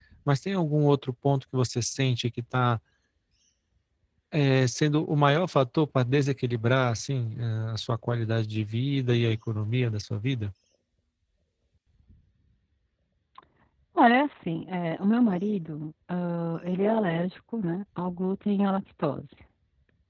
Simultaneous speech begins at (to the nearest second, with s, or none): none